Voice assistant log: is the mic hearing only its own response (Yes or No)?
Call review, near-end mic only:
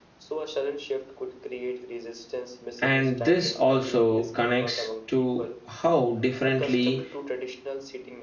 No